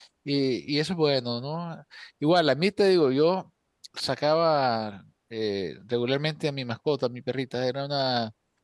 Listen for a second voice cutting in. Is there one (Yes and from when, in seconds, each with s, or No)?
No